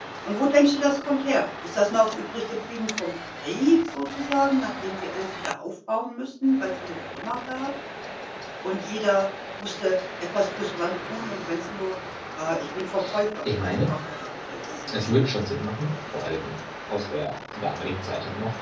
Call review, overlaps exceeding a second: none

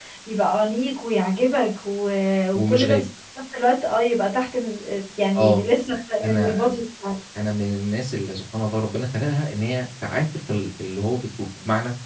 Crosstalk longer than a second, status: none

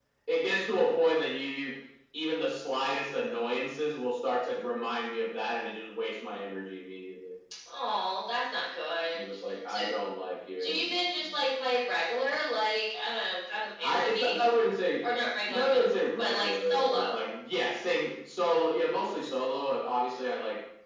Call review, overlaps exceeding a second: present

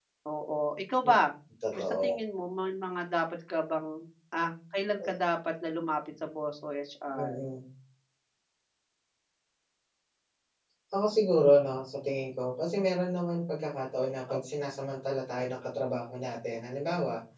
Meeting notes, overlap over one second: none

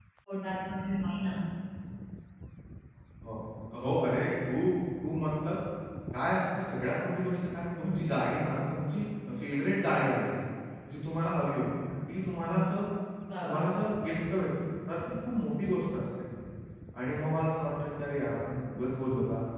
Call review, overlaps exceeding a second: none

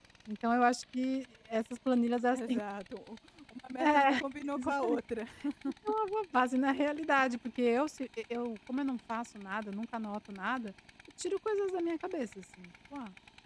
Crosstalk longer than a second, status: none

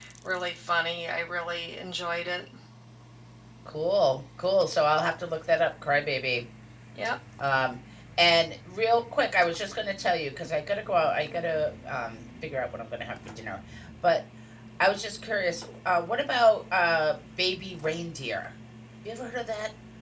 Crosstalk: none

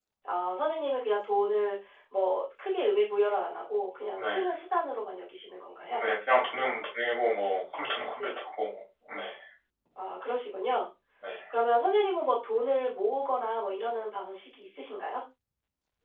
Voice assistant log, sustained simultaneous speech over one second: none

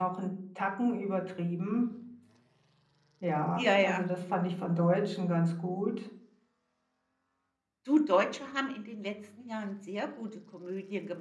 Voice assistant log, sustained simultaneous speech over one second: none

